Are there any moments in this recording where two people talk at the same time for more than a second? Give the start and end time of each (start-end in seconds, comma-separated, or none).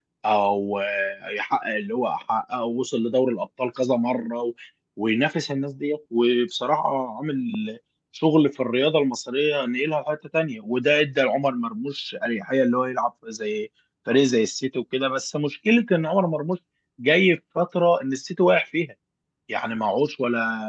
none